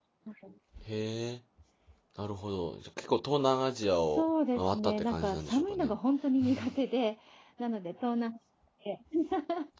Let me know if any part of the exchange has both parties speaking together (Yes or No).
Yes